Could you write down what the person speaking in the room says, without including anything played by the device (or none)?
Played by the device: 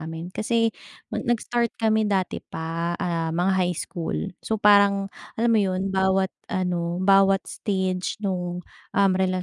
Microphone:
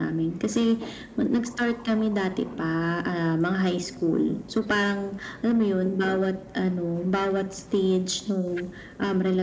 none